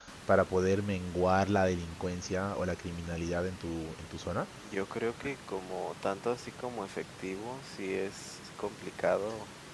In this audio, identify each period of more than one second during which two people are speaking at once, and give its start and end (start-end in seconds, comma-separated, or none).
none